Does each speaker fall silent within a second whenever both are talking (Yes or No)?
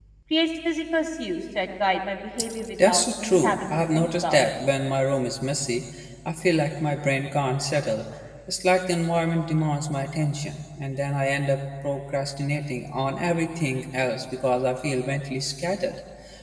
No